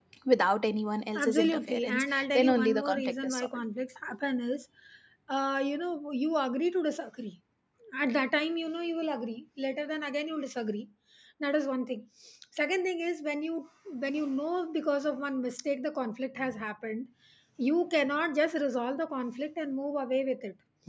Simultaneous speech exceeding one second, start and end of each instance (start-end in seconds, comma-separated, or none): 1.2-3.6